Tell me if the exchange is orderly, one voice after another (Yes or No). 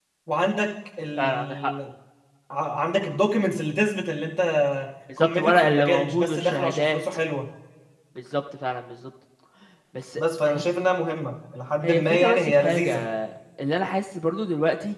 No